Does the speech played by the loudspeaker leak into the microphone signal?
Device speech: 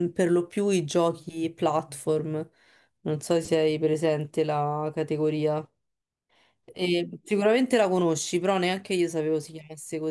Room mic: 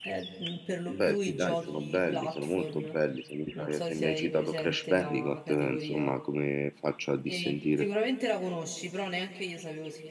Yes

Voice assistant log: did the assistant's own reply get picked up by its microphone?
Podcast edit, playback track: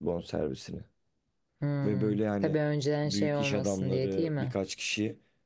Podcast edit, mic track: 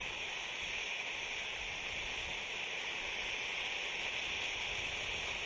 No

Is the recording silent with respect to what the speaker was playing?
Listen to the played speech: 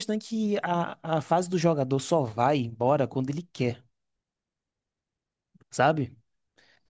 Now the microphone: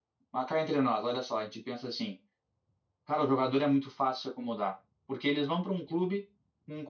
Yes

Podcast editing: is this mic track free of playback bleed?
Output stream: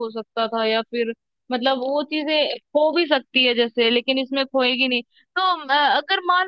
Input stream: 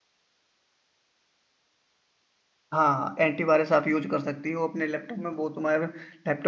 Yes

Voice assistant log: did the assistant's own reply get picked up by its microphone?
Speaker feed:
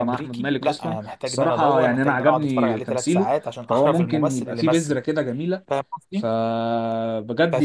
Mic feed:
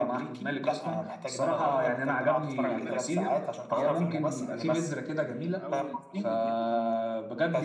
Yes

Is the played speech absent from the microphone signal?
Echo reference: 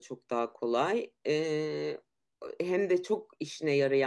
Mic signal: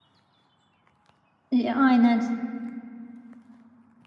Yes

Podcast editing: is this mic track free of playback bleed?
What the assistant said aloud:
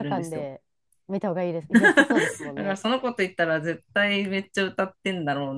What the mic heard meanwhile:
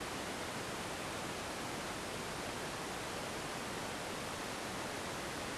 Yes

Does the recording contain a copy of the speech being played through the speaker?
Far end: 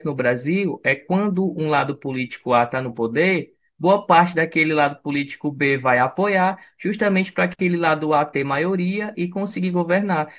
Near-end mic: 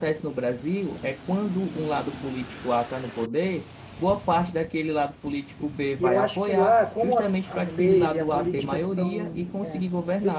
Yes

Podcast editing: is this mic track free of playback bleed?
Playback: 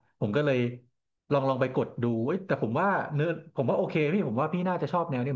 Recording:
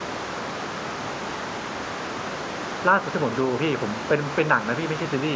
Yes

